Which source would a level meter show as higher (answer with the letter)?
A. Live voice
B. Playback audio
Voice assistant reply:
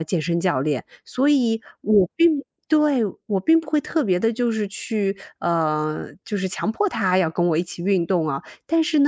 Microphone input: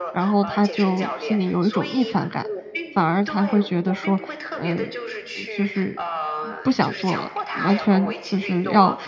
A